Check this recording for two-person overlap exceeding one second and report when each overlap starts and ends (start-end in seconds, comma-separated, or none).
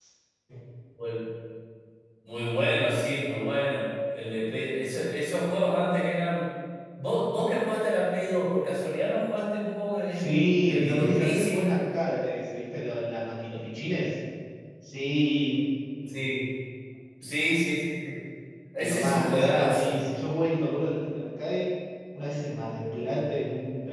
10.1-11.7, 18.8-20.0